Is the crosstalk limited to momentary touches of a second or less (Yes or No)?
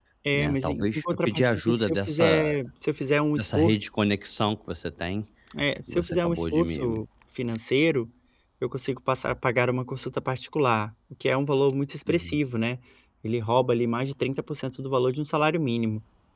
No